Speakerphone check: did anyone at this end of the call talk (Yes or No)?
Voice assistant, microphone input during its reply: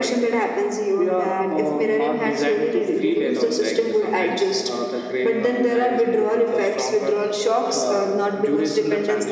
No